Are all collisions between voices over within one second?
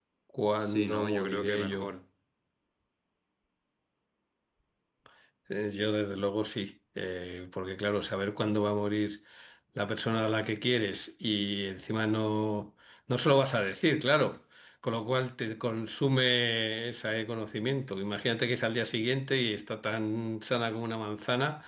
No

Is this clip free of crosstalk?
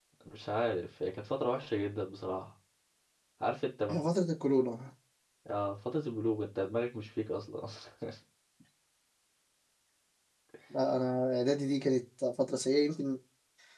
Yes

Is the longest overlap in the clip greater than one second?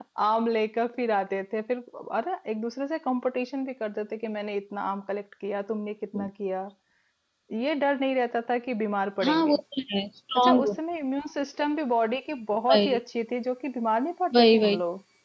No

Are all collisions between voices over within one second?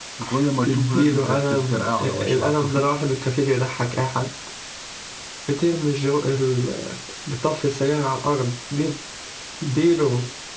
No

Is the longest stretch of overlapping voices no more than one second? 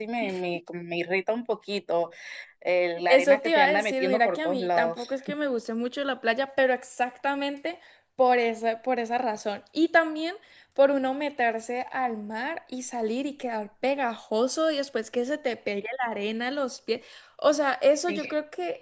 No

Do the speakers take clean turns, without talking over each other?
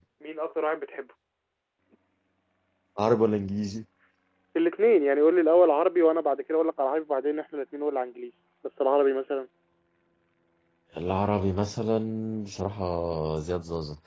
Yes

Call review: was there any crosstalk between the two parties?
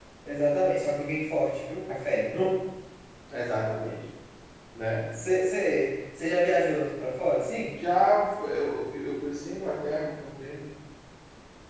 No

